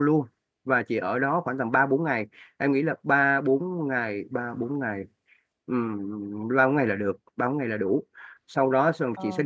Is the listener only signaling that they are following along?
Yes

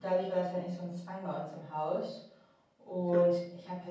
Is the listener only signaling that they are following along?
Yes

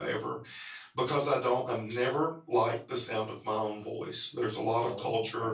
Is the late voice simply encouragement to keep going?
Yes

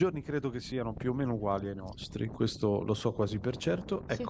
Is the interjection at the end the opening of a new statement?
No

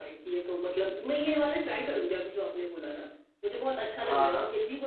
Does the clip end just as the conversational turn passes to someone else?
No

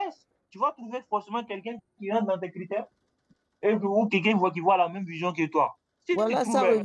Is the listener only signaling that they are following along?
No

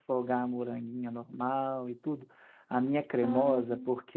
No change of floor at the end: Yes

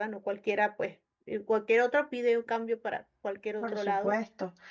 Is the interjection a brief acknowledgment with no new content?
No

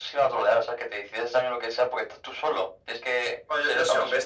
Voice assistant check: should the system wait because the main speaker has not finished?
No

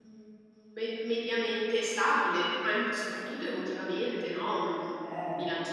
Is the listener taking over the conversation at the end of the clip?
No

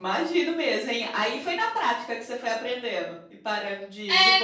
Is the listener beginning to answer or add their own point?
Yes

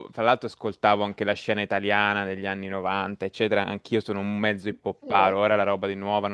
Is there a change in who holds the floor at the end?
No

